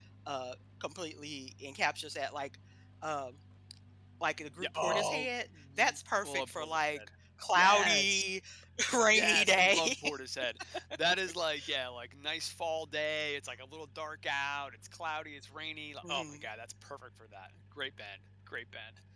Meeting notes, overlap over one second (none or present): present